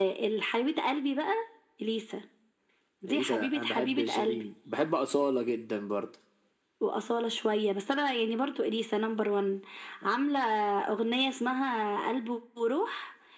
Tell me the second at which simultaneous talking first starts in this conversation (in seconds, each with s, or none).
3.0 s